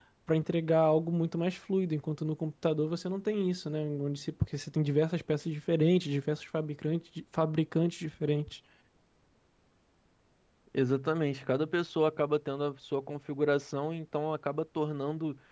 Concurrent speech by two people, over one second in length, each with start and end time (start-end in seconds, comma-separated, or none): none